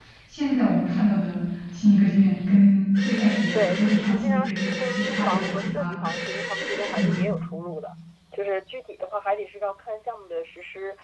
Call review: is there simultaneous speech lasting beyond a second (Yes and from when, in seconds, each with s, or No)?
Yes, from 3.5 s